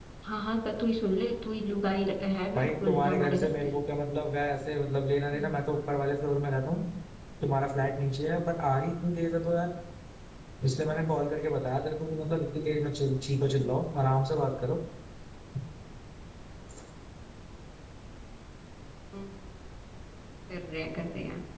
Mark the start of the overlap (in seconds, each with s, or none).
2.5 s